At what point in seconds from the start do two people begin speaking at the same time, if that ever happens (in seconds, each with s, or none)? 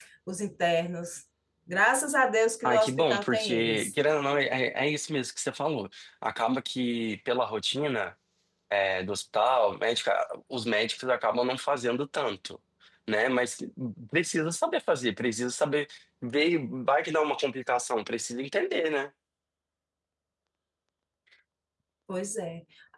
2.6 s